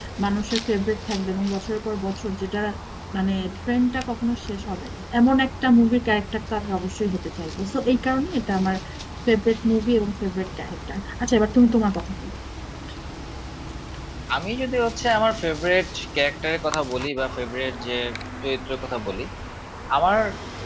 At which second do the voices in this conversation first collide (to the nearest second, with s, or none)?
none